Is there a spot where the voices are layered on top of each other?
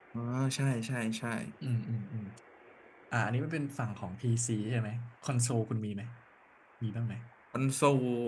No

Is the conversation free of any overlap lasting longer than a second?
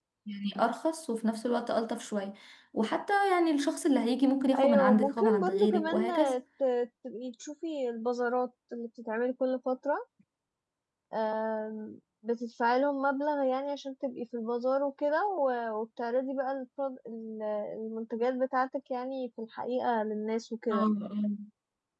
No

